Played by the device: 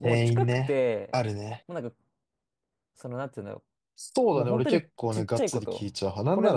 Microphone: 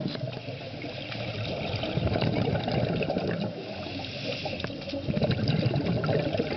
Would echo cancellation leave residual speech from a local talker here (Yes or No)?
No